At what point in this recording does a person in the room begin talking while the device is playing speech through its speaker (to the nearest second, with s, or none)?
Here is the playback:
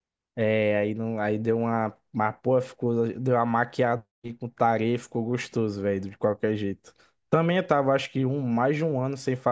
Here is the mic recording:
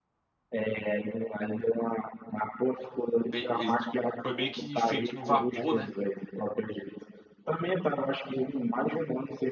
3 s